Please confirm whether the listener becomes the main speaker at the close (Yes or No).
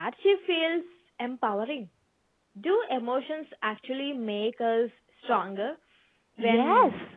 Yes